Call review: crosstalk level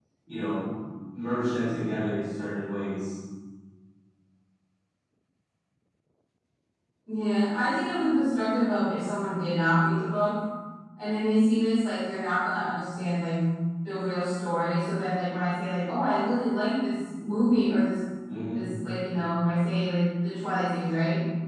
none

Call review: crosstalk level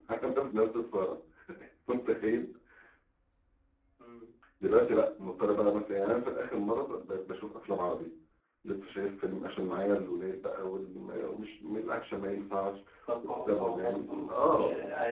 present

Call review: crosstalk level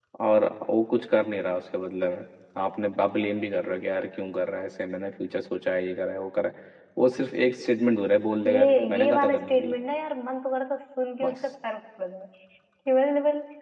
present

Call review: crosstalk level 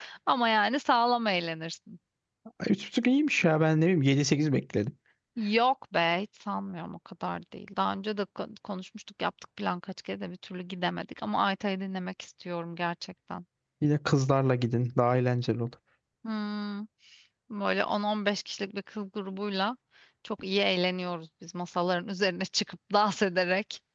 none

